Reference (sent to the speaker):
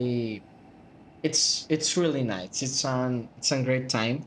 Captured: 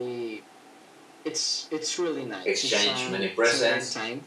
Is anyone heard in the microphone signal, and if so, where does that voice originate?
both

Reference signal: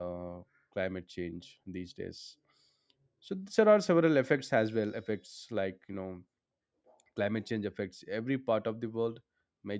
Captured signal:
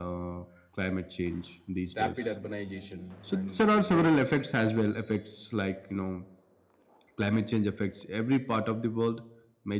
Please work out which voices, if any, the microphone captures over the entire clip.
both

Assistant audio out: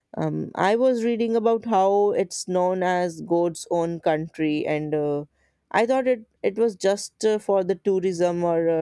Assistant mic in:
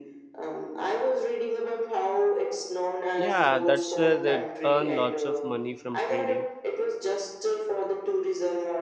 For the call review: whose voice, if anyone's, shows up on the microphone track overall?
both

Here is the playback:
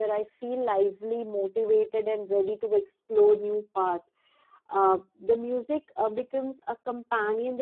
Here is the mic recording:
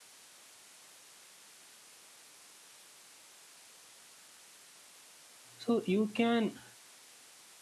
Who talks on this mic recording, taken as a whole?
user only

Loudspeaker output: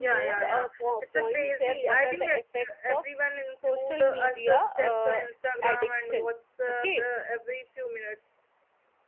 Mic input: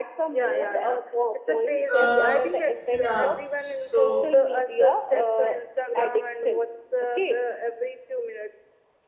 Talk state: both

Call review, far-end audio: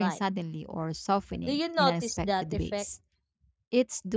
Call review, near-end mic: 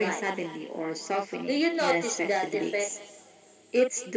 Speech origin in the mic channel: echo only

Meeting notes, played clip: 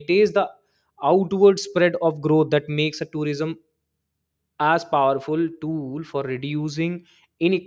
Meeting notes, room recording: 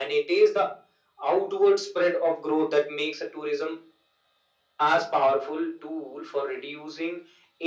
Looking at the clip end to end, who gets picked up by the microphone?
echo only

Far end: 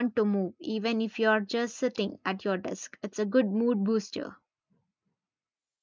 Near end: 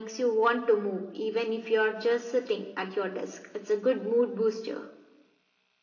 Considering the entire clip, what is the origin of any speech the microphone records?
echo only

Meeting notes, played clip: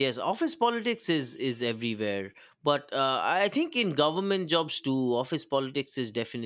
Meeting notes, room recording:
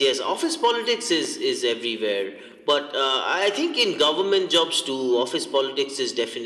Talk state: echo only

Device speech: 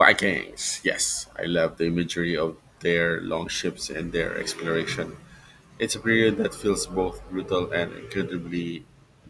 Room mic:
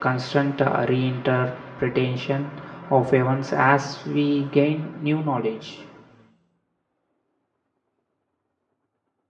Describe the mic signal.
user only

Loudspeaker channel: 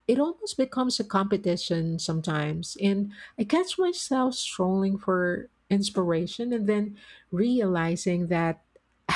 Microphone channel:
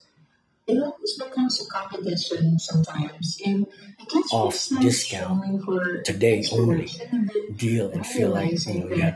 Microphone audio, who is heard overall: both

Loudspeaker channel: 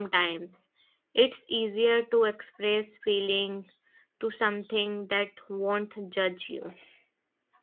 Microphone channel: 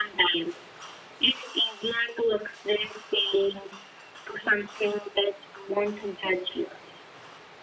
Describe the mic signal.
echo only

